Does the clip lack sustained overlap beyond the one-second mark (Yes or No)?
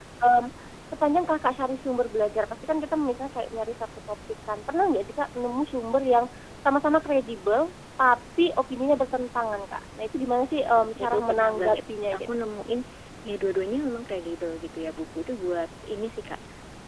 No